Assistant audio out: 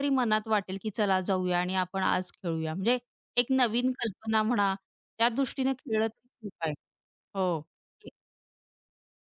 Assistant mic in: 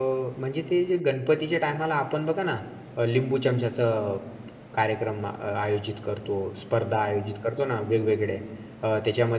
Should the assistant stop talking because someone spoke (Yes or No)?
Yes